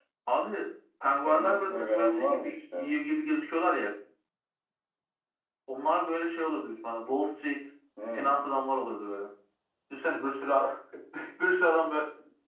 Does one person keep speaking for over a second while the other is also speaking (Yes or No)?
Yes